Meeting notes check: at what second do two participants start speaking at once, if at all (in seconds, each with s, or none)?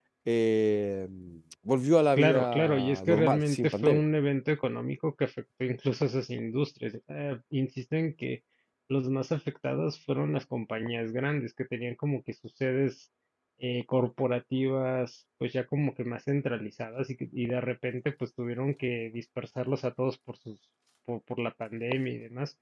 2.2 s